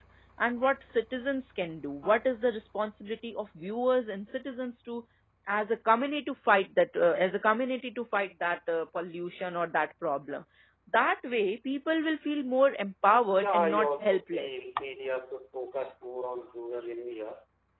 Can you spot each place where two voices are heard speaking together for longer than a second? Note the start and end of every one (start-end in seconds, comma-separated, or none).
13.3-14.7